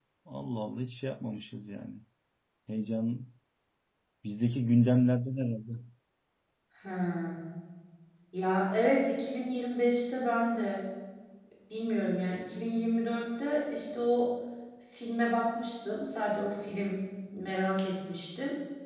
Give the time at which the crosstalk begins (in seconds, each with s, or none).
none